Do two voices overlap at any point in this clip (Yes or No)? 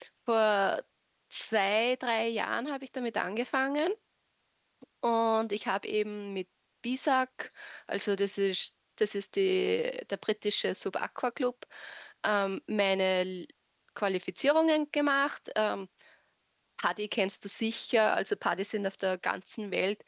No